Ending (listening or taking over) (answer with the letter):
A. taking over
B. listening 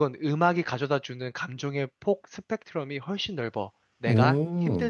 B